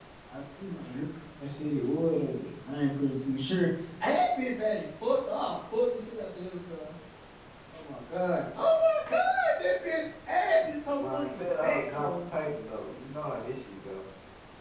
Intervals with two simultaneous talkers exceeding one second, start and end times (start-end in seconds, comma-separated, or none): 10.9-12.3